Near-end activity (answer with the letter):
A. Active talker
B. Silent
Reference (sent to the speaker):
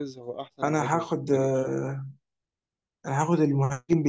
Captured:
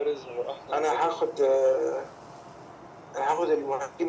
B